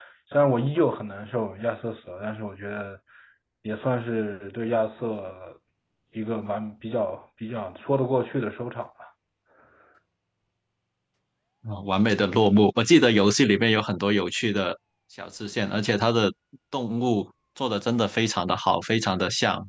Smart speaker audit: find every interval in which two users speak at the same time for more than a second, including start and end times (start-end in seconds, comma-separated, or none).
none